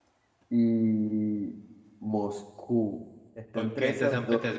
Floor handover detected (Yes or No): Yes